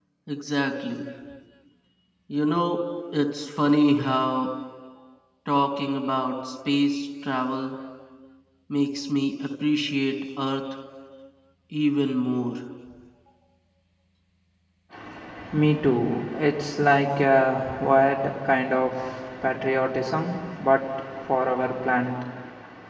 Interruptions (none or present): none